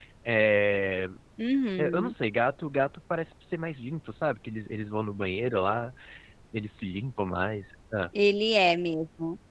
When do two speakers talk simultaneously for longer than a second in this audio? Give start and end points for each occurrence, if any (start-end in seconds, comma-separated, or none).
none